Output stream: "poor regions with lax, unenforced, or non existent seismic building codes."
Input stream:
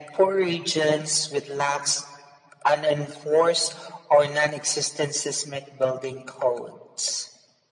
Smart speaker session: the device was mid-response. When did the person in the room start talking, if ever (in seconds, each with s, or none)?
none